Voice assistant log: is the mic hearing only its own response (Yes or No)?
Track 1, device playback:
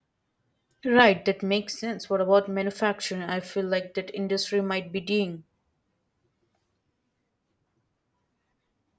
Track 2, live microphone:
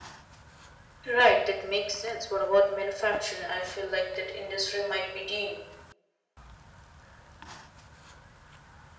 Yes